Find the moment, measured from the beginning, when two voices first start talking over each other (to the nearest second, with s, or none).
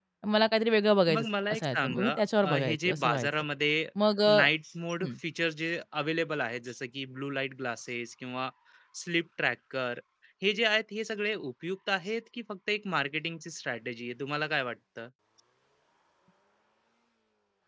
1 s